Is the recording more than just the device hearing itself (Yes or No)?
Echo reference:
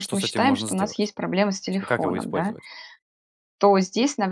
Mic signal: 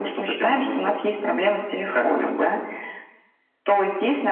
No